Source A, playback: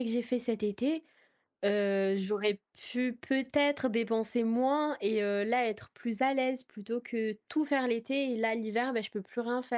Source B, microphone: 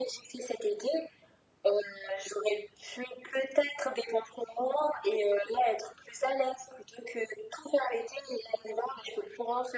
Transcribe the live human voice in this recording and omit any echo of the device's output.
none

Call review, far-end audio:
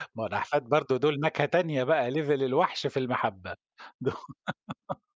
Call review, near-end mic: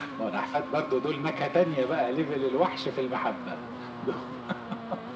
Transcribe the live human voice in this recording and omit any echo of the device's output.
none

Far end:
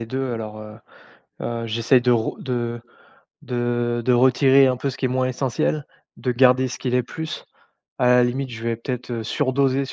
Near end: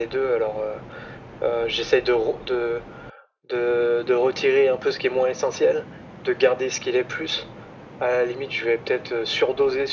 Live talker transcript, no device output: none

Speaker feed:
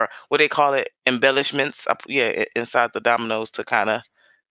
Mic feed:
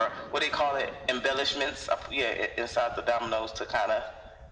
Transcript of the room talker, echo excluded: none

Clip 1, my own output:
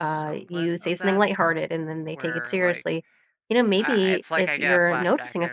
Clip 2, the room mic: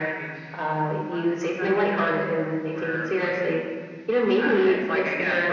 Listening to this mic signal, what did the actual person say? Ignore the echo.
none

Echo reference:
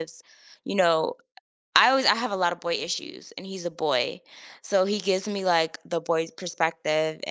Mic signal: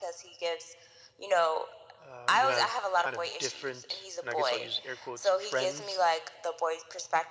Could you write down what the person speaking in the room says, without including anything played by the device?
uh, you have kind of different, and I guess I'll use air quotes, friends

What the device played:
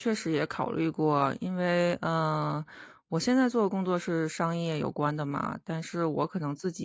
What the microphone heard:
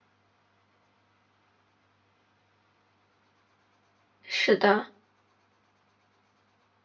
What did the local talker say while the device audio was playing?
是的，

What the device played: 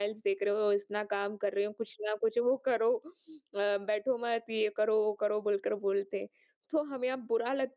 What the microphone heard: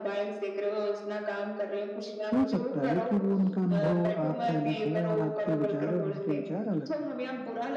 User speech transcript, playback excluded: हो सकता है कि वो उनका अनुभव आपसे अलग हो और आपके विचार और उनके विचार अलग हों।

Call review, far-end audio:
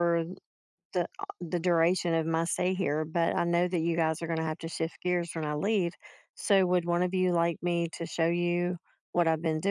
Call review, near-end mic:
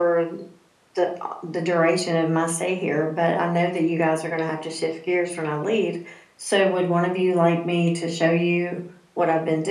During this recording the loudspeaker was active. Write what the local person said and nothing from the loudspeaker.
none

